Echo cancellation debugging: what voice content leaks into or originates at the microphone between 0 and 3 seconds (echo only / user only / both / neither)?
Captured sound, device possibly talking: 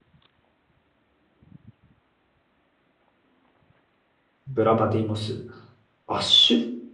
neither